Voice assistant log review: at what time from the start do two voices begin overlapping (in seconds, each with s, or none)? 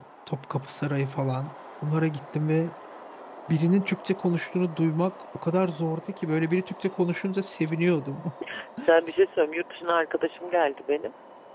none